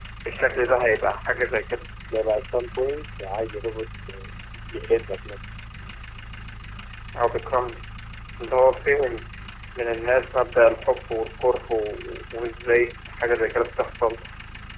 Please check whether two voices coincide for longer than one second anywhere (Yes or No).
No